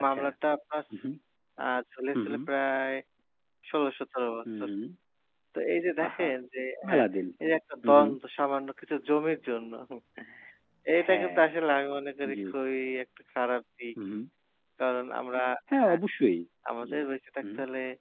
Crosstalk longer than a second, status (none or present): none